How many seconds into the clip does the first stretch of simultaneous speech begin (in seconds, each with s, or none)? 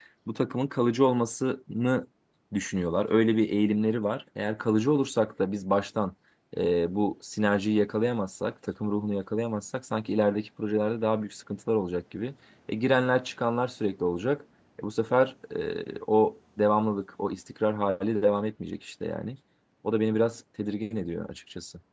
none